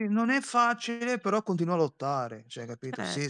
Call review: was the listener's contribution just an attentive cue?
Yes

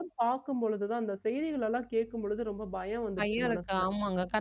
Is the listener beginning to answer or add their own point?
Yes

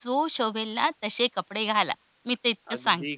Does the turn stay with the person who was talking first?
No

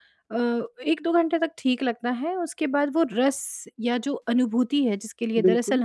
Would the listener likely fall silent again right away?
Yes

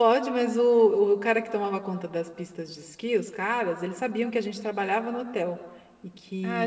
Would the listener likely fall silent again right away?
No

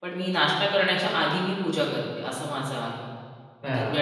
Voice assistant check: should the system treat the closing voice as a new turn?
Yes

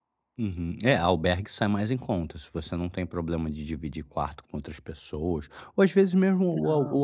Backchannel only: Yes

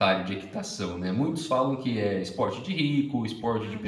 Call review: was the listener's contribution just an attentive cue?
Yes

